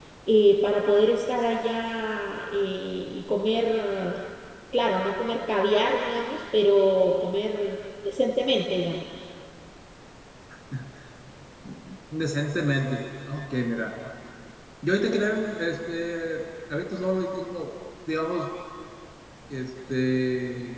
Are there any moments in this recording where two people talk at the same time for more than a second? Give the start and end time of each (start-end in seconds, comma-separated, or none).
none